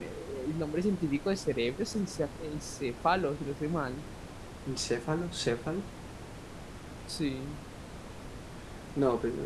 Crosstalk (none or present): none